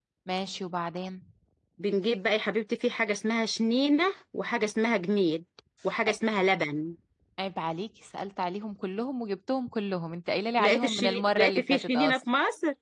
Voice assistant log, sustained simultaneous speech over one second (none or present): present